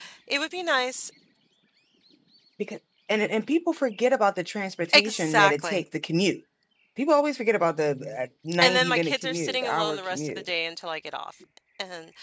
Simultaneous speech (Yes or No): Yes